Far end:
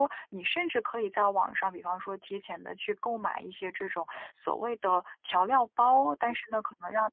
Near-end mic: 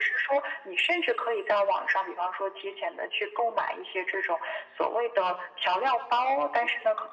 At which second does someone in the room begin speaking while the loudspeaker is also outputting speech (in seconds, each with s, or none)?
none